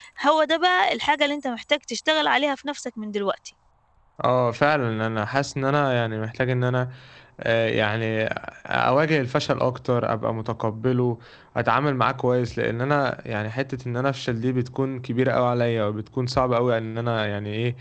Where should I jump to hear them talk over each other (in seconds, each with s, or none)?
none